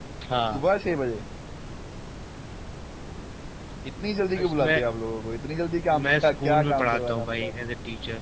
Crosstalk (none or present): present